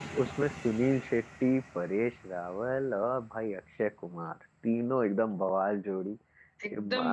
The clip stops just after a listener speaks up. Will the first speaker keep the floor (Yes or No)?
No